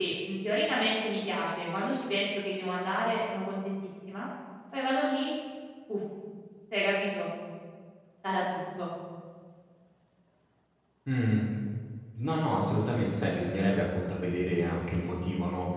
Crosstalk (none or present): none